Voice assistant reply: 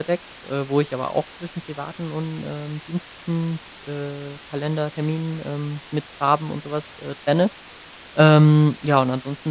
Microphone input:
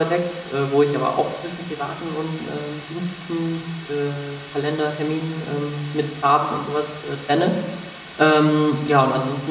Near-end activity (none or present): none